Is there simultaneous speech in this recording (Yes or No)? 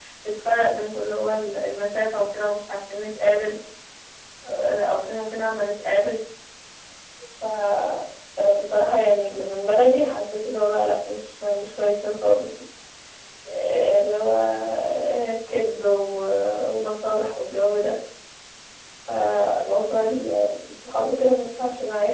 No